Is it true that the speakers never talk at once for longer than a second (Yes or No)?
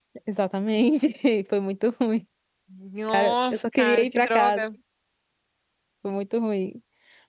No